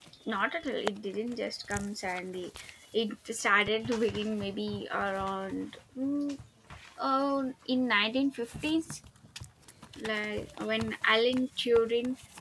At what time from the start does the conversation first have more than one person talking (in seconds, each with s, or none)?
none